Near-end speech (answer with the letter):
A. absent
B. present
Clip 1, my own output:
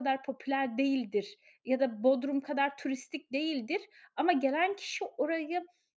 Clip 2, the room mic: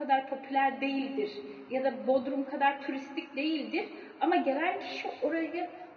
A